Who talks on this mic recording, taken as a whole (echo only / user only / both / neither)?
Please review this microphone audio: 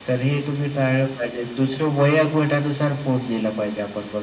echo only